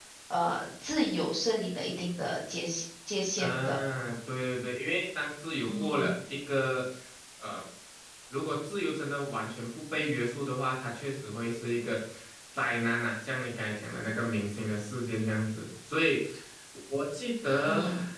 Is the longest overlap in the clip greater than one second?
No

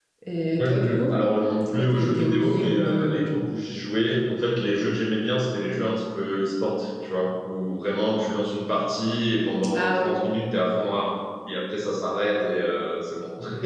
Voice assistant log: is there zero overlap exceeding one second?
No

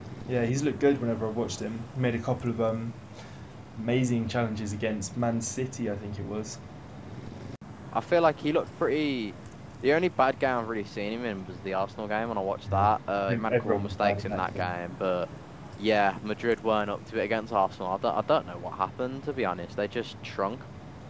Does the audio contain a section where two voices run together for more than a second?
Yes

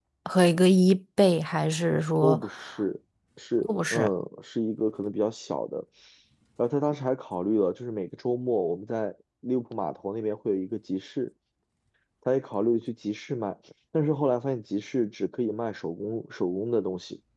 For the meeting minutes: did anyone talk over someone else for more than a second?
No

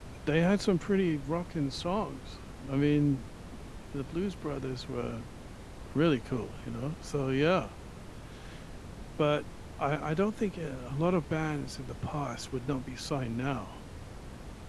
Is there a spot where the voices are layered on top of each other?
No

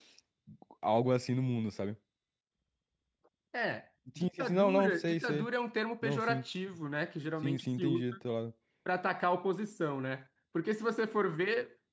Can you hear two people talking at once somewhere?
Yes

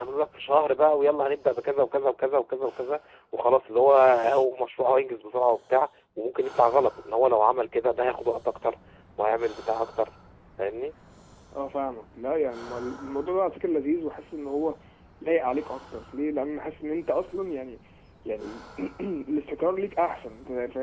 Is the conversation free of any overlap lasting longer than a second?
Yes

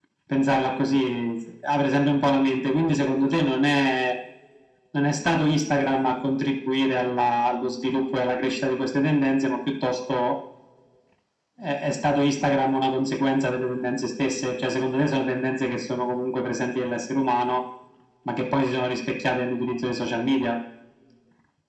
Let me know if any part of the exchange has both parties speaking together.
No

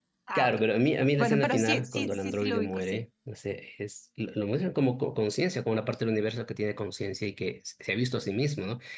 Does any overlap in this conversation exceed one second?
Yes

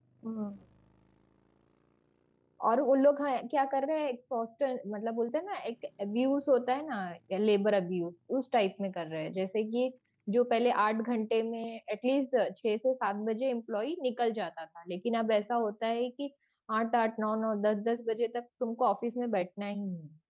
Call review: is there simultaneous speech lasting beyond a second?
No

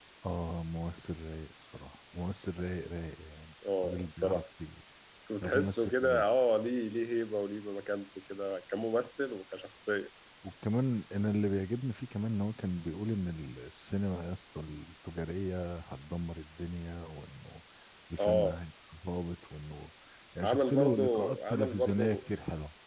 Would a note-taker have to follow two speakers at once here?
Yes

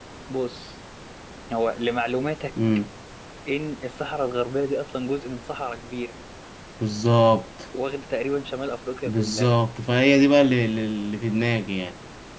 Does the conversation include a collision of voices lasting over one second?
No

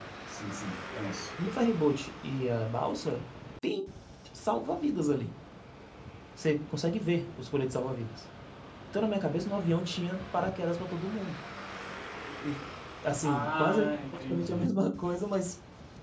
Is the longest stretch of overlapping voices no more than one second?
No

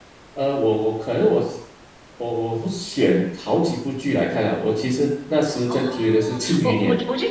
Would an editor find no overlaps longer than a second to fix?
No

